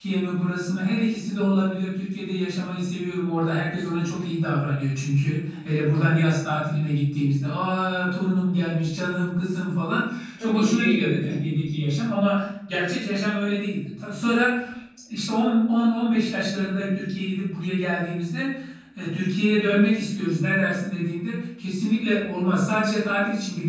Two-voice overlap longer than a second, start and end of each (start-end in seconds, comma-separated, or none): 10.4-11.9